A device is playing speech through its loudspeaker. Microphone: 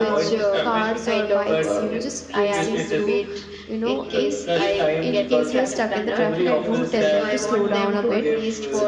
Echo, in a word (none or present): present